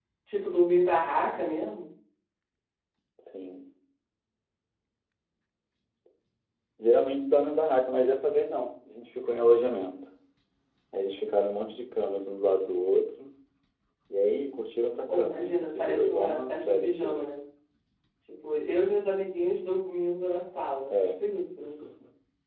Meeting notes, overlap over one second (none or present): present